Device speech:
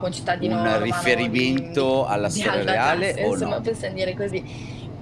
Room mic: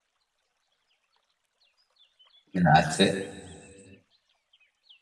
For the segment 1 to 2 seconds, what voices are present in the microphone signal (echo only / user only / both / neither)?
neither